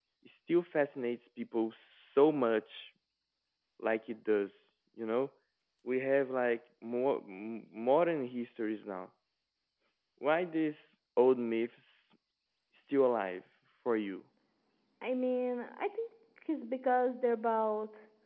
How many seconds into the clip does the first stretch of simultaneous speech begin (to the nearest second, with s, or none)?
none